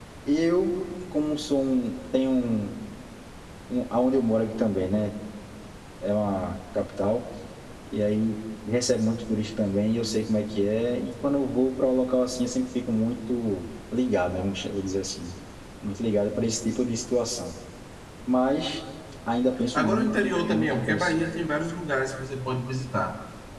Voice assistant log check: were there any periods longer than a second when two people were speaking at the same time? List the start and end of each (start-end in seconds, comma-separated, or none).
19.7-21.2